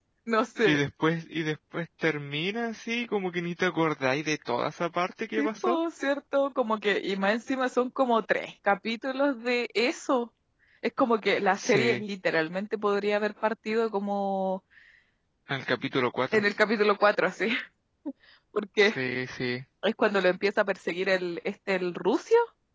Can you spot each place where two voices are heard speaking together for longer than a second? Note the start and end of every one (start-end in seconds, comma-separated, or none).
none